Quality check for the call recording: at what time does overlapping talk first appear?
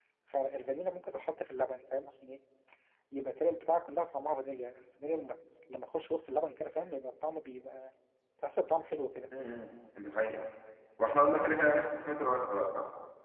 none

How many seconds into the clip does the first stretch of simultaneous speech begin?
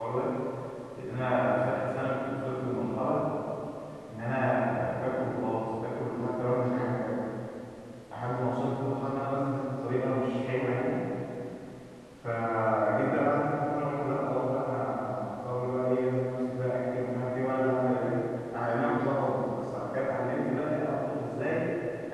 none

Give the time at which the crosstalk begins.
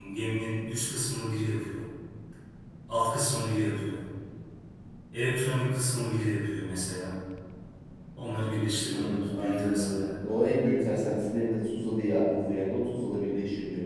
9 s

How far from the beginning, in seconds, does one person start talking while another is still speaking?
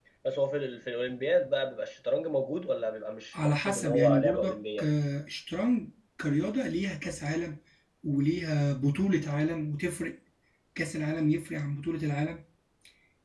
3 s

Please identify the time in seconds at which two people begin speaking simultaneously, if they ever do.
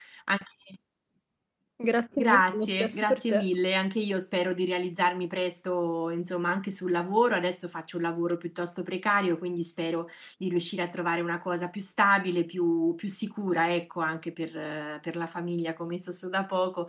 2 s

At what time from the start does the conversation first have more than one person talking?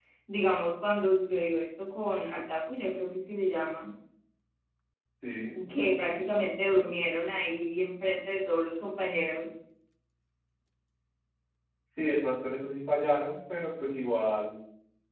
none

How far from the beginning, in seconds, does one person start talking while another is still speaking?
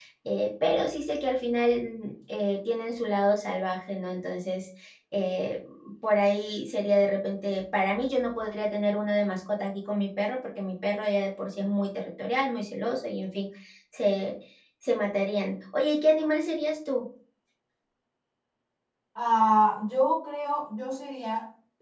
none

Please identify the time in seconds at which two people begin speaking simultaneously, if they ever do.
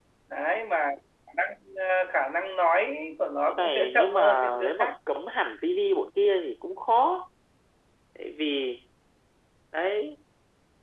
3 s

